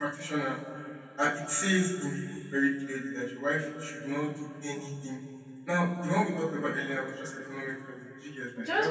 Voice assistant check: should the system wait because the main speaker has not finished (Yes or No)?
No